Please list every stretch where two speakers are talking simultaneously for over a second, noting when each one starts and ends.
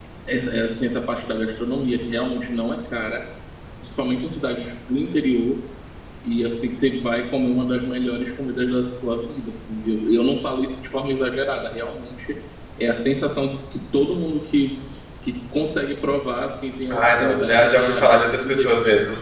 16.9-18.7

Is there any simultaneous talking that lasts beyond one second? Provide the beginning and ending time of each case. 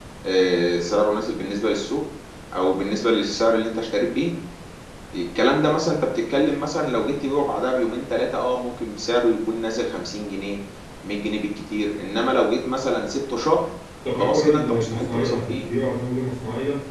14.1-15.7

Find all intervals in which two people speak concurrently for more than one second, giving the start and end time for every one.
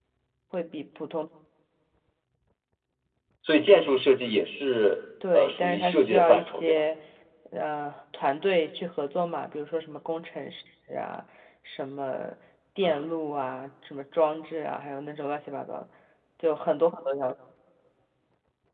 5.3-6.8

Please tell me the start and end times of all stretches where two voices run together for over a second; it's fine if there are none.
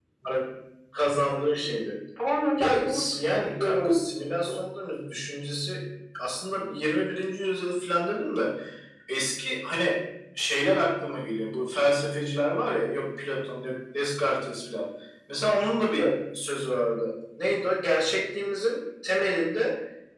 2.6-4.1

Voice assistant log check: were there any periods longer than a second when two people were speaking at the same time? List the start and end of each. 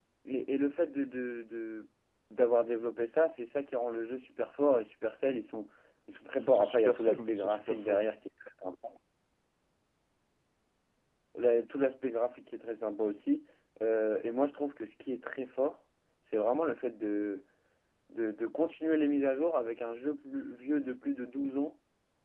6.4-8.1

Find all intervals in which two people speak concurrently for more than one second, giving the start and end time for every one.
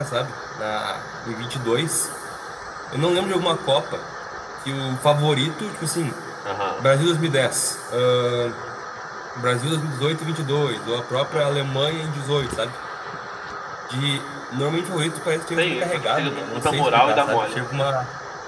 15.6-17.5

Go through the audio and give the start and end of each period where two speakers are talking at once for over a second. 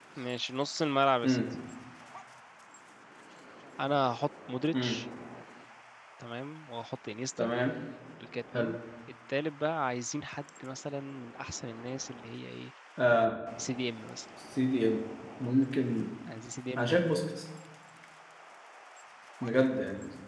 none

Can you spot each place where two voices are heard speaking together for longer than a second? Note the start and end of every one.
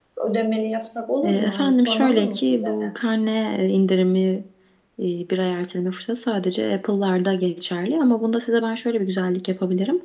1.2-2.7

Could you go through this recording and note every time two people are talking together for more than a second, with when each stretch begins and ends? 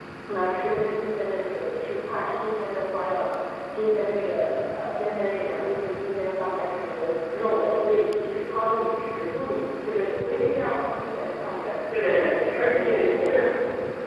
11.9-13.5

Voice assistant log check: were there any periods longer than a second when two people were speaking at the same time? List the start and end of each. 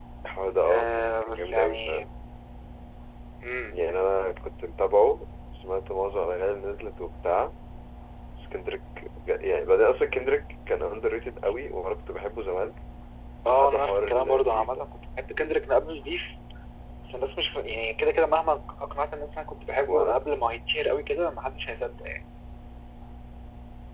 0.6-2.0, 13.5-14.9

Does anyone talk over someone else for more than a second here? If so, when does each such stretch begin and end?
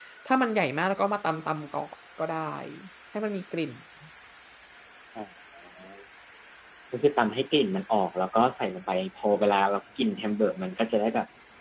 none

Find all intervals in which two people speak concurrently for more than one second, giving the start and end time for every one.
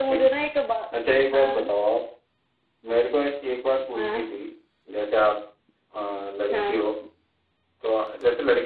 none

